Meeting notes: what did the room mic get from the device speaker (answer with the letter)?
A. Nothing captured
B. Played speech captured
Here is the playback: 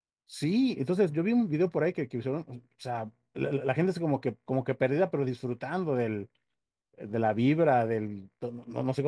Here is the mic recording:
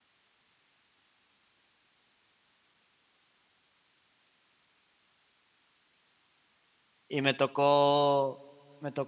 A